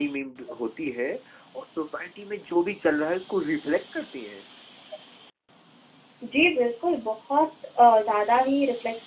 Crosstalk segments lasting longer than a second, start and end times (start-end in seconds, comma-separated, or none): none